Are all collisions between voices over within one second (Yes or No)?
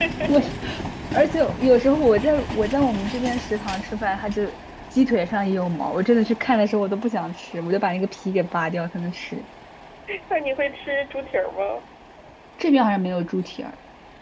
Yes